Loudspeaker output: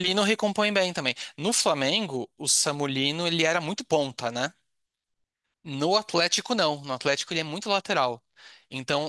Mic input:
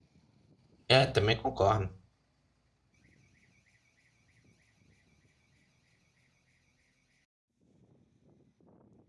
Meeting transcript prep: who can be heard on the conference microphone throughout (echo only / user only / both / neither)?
user only